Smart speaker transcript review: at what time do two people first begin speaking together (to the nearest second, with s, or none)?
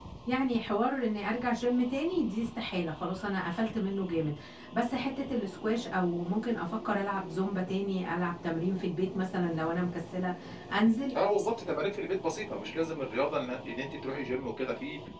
none